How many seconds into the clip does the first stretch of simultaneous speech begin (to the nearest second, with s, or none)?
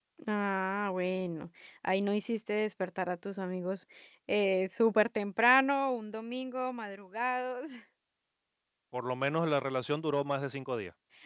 none